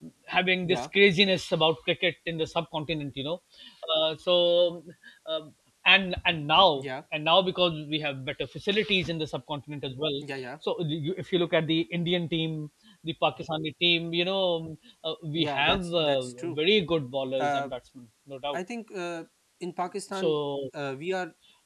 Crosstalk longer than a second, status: present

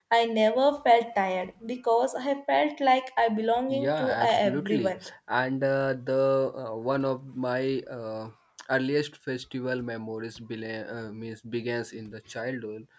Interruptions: present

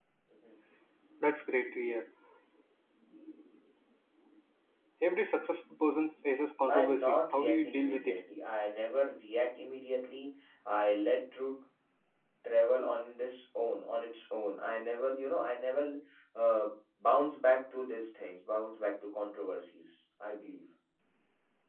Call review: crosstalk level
present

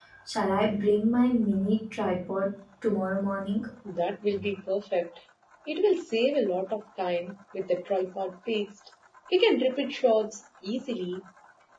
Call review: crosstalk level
none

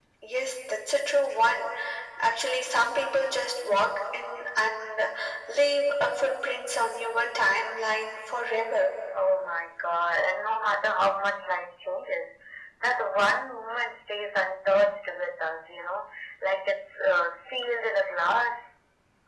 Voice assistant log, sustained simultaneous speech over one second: none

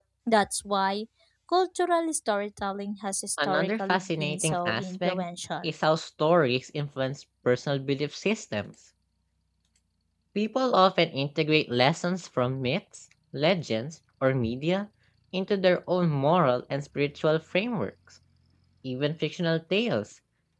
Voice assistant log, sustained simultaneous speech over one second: present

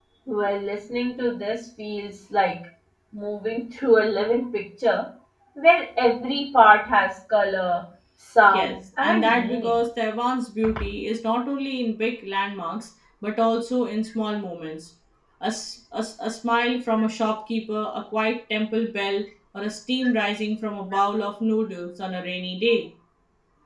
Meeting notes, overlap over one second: present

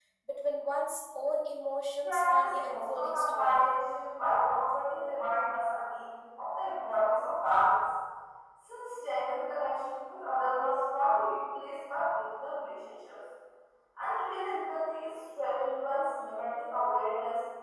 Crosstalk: present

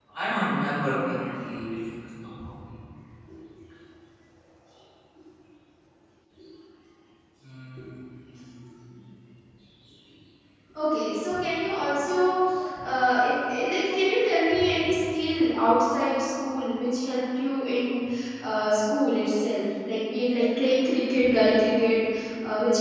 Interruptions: none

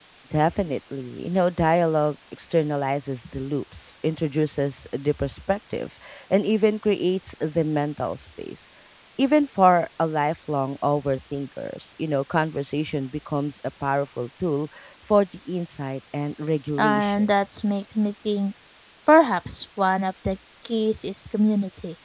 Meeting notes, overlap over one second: none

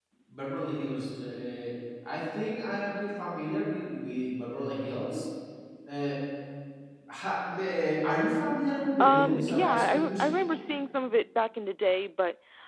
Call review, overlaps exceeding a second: present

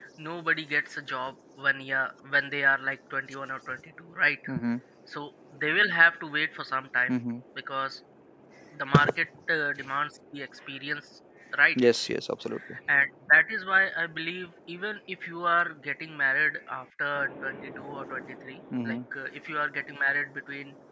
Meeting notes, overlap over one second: none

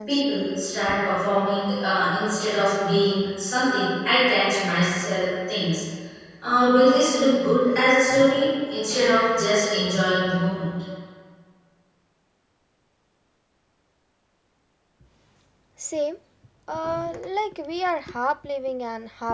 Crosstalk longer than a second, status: none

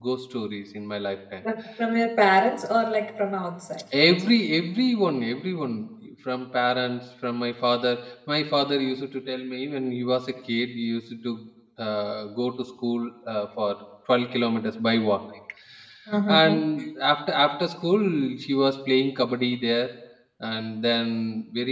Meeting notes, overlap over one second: none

